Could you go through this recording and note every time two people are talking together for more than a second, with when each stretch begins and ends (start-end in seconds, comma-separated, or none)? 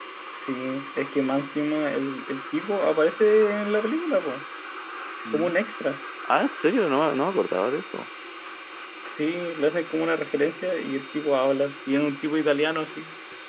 none